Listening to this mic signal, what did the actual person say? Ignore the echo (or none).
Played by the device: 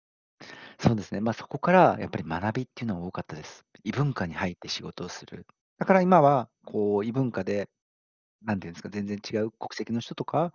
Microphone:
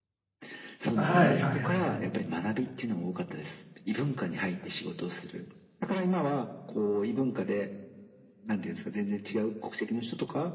はいはいはいはい。